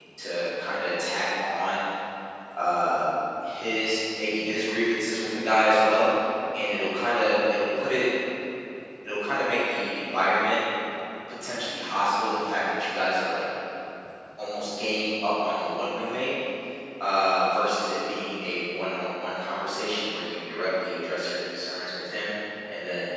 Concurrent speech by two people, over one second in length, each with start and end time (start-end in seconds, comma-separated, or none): none